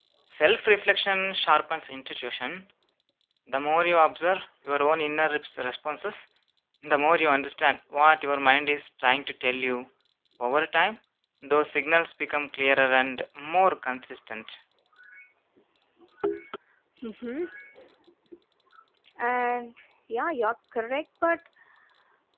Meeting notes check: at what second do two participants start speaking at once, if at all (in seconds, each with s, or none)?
none